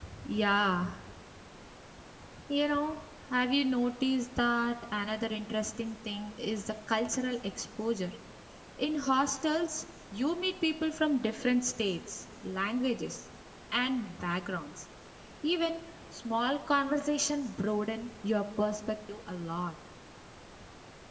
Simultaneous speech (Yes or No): No